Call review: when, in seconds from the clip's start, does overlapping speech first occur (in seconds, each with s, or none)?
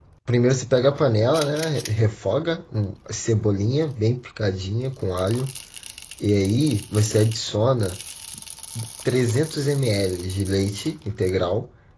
none